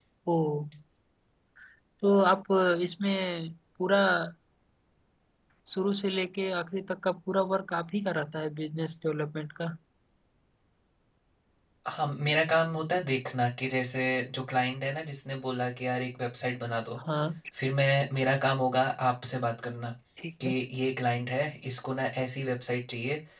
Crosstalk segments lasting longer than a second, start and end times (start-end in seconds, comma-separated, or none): none